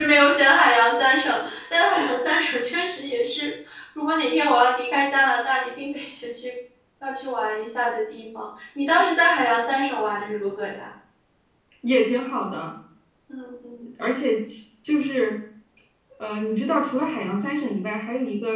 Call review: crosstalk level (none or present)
none